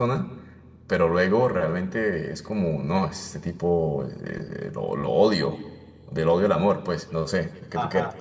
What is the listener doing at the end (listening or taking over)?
taking over